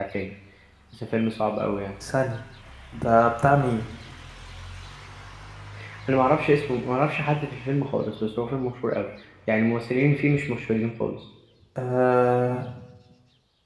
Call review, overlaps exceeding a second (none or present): none